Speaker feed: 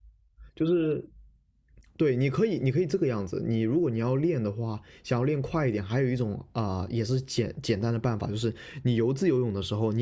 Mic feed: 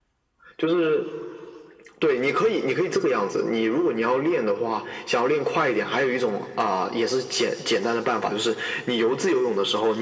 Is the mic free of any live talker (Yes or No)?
Yes